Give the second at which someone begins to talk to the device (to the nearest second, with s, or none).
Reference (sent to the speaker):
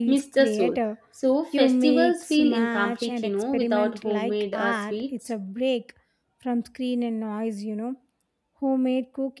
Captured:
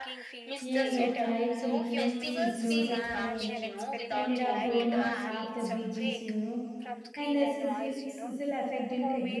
1 s